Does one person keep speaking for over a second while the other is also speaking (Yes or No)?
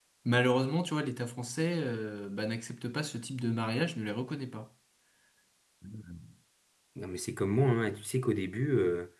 No